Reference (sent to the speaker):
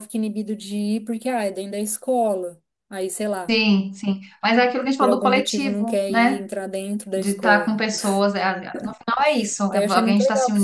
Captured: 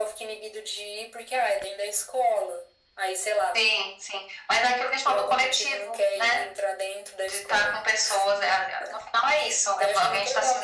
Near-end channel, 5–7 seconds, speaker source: echo only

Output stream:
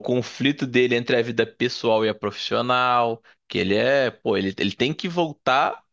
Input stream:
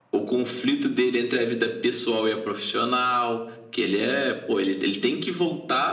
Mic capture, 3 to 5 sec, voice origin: echo only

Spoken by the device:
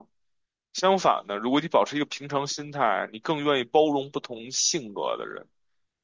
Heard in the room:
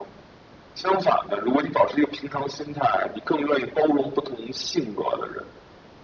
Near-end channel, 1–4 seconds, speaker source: echo only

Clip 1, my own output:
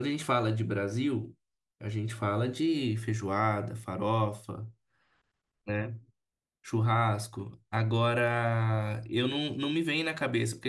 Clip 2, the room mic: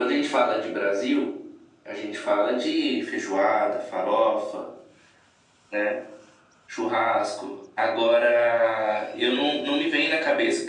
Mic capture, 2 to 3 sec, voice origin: echo only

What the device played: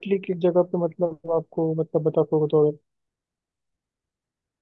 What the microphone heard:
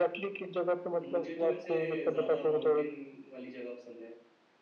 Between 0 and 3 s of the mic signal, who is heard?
both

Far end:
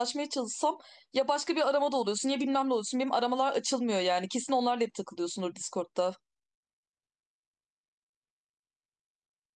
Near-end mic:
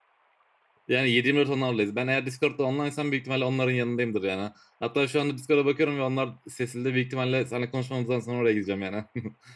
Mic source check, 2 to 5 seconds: user only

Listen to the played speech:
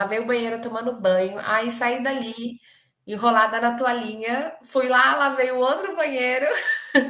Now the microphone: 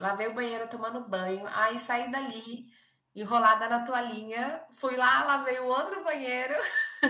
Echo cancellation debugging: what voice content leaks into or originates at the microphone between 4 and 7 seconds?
echo only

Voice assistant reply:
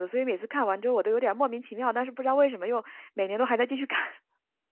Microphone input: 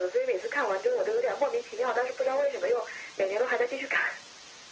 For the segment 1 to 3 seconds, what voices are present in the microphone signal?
echo only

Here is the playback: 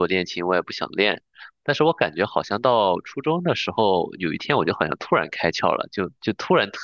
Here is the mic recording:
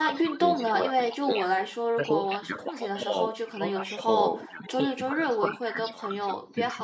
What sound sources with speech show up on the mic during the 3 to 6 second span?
both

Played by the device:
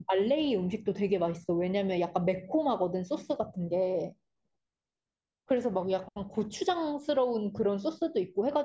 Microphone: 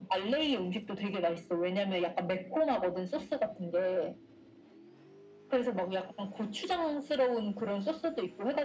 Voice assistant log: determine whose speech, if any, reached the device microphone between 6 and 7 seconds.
echo only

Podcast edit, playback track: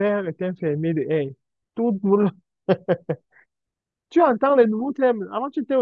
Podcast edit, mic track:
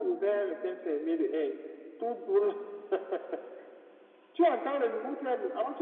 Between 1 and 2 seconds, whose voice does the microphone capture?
echo only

